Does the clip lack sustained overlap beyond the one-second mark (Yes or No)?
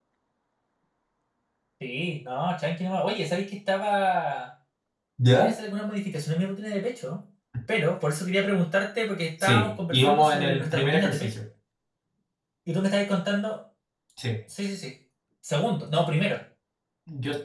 No